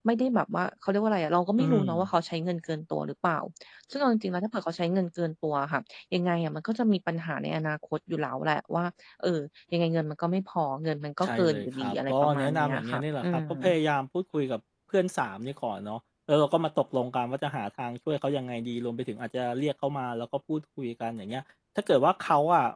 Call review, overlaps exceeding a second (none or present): present